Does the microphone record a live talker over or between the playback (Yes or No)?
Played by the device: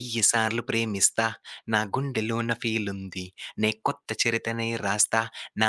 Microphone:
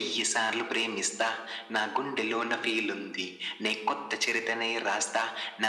No